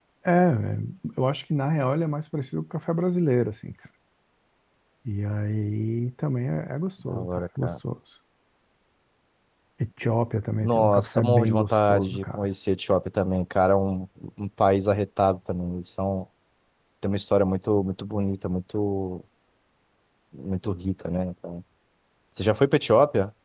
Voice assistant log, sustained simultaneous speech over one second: present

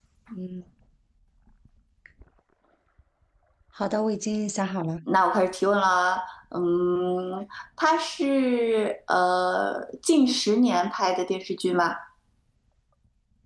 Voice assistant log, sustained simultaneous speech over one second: none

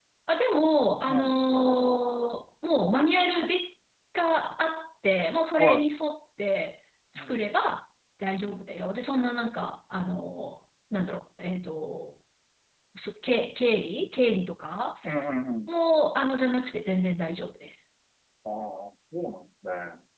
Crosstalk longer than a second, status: none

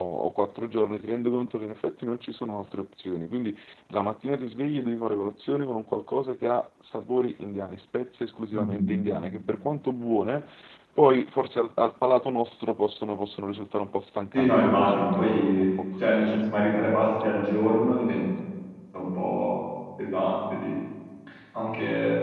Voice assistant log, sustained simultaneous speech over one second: present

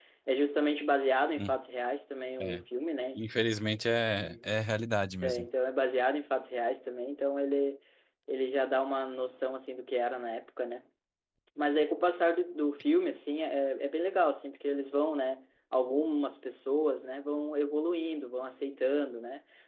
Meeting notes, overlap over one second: none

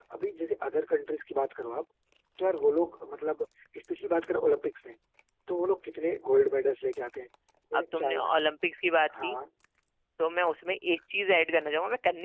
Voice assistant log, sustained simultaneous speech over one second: none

